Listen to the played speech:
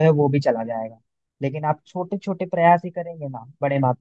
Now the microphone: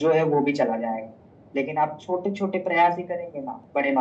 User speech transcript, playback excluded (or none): none